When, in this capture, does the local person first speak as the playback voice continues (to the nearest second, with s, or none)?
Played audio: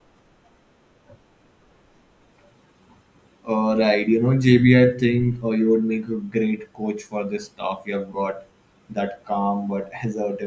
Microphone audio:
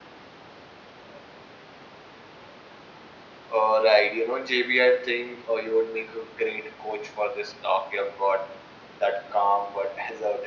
none